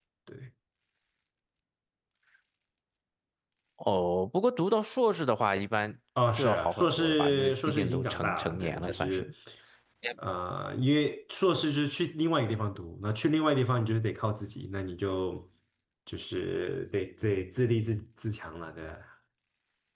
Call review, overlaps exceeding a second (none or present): present